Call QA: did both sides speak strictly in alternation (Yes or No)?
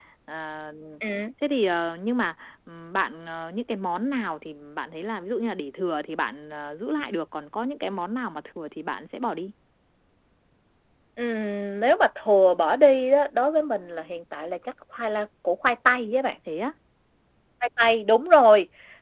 Yes